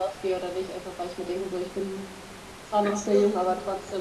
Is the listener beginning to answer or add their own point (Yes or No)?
No